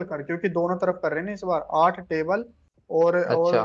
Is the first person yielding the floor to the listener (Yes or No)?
No